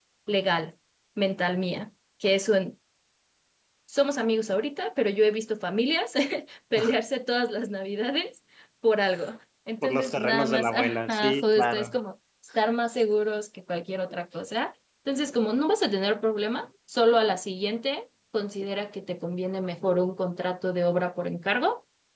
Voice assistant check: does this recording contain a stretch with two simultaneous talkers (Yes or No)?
Yes